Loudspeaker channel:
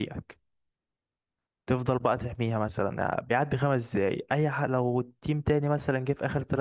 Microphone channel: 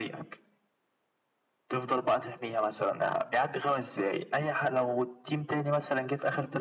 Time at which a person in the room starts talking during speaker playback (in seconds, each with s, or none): none